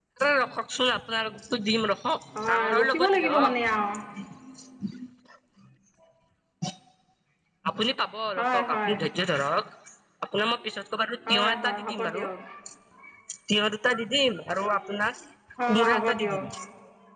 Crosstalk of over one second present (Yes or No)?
Yes